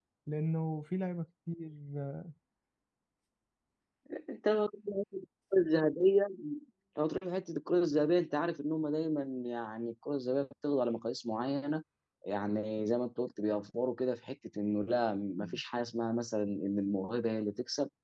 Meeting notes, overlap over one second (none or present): none